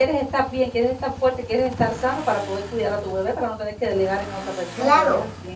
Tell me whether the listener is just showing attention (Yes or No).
No